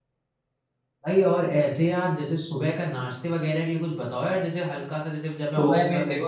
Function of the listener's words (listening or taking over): taking over